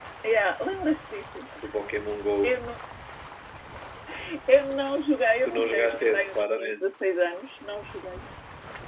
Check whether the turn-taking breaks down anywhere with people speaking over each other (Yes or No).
Yes